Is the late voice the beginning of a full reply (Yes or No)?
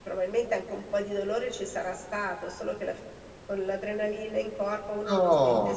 Yes